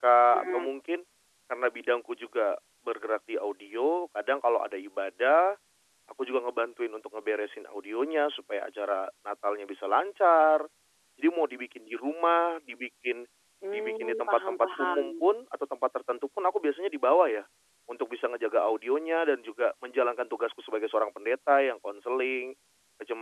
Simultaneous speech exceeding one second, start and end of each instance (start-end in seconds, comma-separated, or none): 13.7-15.1